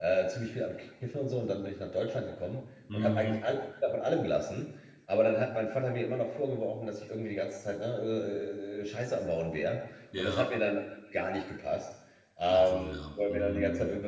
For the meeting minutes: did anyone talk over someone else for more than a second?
Yes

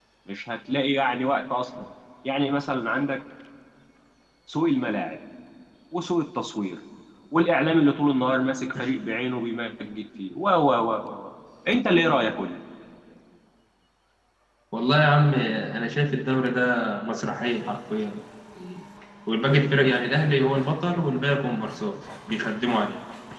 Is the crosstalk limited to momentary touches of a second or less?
Yes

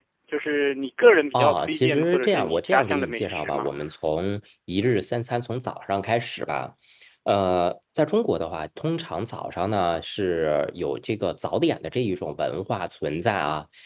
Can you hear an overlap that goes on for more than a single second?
Yes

